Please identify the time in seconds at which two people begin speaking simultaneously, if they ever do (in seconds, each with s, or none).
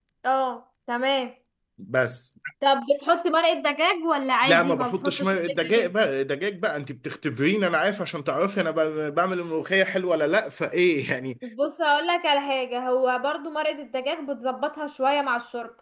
4.4 s